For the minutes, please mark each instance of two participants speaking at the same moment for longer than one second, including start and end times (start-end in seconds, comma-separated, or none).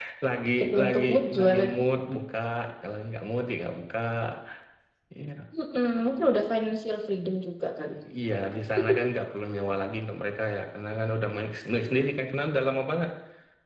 0.6-1.8